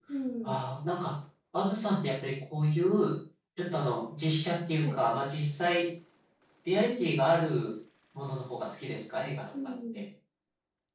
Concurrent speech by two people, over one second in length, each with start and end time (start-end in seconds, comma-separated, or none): none